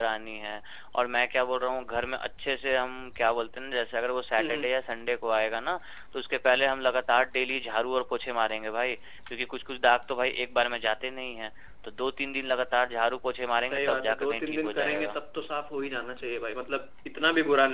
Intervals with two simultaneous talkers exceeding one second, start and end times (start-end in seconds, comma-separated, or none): 13.6-15.2